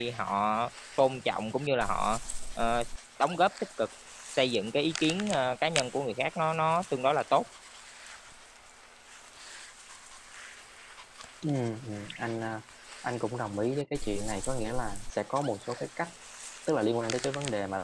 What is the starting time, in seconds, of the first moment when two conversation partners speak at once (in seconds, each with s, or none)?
none